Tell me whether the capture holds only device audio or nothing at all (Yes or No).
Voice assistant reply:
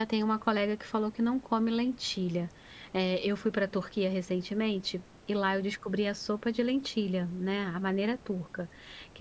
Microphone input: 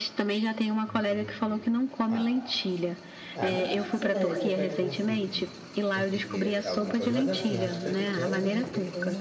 No